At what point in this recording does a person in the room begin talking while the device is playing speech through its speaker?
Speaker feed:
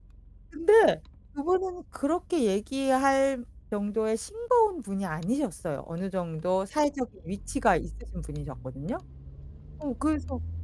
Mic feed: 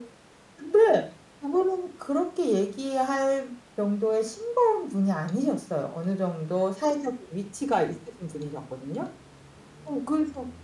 none

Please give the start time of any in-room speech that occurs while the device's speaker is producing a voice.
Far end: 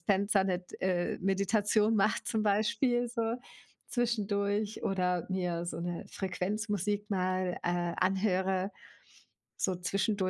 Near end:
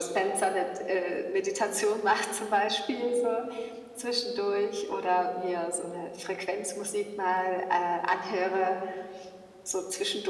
none

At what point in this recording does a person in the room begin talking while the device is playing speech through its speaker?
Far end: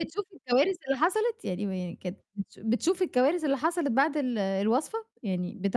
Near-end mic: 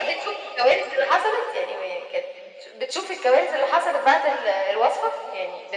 none

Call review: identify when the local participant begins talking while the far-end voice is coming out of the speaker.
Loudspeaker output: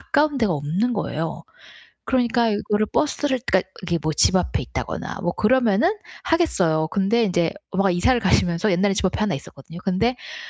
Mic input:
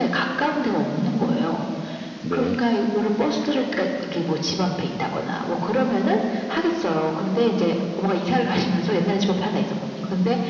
2.2 s

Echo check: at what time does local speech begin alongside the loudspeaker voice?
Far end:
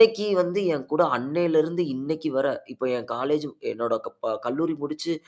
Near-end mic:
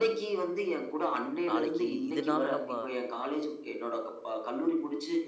1.5 s

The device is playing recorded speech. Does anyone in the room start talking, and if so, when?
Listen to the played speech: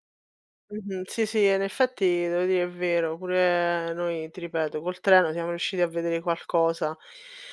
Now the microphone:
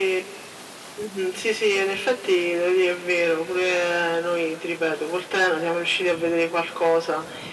none

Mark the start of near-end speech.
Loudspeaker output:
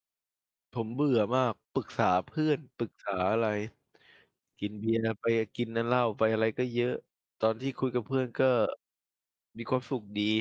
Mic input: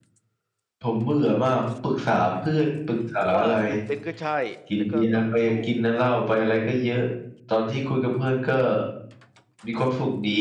3.2 s

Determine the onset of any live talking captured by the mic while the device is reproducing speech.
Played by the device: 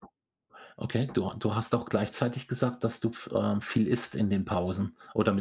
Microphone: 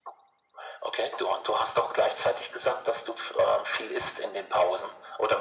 none

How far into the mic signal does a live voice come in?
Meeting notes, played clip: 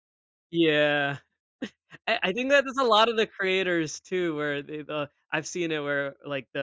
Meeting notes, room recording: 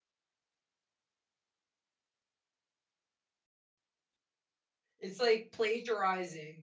5.0 s

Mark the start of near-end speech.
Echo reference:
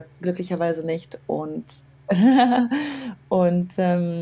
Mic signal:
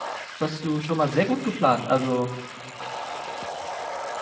0.4 s

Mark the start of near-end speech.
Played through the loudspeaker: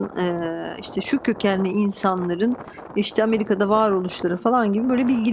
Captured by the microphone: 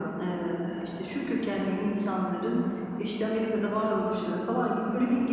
none

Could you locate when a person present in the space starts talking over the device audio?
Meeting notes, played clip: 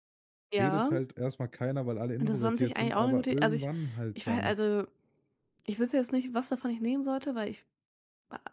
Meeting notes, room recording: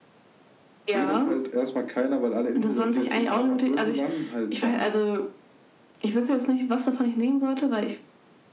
none

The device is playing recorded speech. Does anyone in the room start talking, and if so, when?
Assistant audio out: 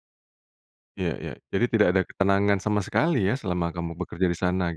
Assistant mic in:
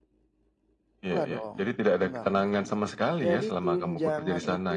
1.0 s

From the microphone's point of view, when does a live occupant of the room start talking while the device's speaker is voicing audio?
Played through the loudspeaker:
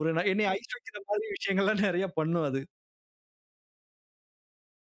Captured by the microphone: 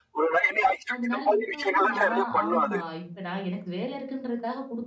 0.9 s

